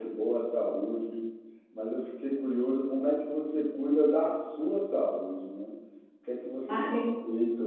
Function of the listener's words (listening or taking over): listening